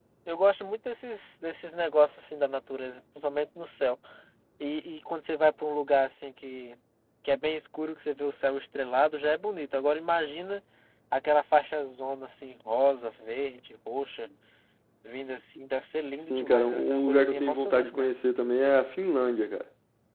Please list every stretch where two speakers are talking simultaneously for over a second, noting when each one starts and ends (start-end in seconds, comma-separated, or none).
16.3-18.1